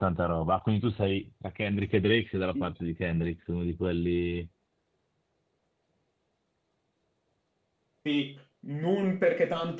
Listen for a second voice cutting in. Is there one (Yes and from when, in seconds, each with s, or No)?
No